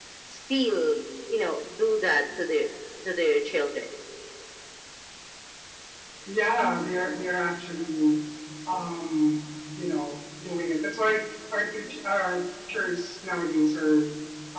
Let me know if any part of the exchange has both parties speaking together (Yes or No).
No